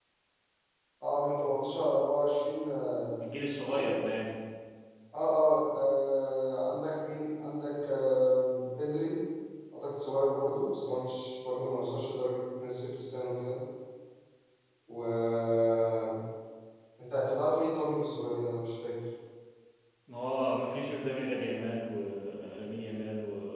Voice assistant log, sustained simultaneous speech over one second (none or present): none